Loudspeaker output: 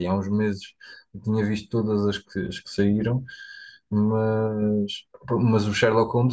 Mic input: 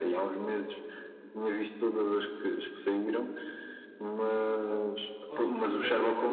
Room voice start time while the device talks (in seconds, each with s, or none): 5.3 s